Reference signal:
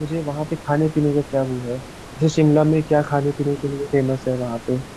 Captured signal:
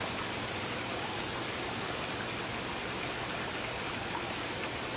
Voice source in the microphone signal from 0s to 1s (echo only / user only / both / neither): neither